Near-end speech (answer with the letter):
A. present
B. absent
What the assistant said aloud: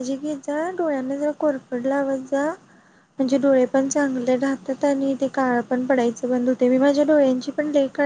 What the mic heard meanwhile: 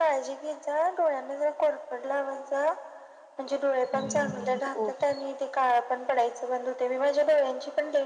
A